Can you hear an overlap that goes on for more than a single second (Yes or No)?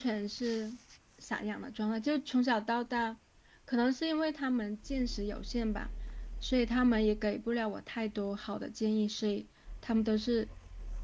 No